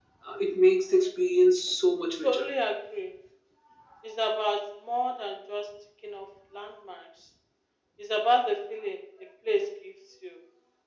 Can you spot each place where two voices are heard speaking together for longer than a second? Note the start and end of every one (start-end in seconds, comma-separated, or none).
none